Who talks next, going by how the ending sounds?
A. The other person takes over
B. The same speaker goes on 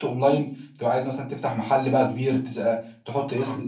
A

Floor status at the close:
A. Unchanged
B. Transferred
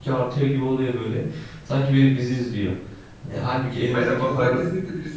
B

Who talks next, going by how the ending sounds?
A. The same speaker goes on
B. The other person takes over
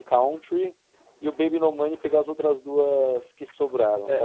B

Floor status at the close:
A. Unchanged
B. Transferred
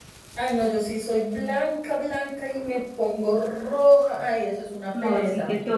B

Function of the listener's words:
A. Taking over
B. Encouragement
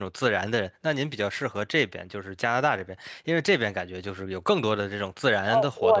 A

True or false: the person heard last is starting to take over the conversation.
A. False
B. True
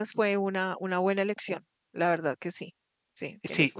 B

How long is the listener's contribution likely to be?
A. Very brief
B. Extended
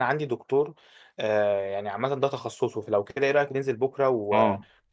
B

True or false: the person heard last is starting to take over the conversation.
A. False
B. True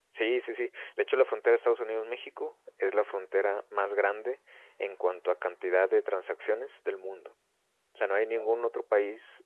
A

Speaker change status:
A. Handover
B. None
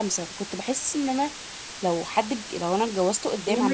A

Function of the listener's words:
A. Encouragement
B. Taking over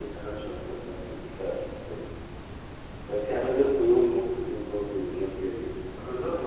B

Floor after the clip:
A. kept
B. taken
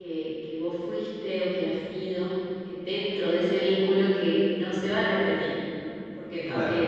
A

